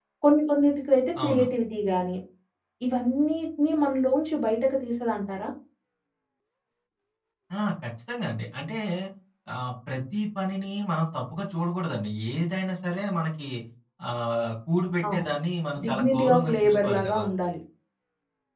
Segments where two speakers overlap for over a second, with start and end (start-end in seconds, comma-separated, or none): 15.8-17.2